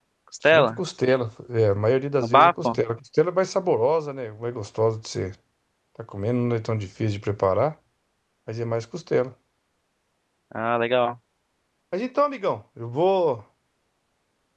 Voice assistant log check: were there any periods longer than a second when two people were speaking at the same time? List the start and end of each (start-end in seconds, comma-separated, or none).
none